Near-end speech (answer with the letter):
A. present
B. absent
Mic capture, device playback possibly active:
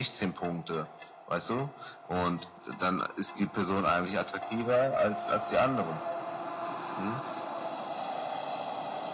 B